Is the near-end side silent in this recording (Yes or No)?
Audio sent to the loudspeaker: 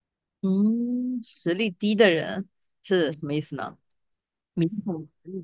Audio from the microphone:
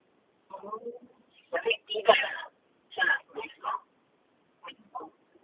Yes